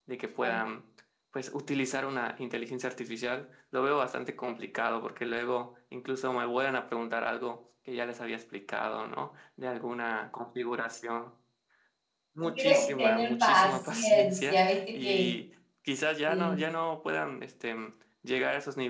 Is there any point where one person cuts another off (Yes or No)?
Yes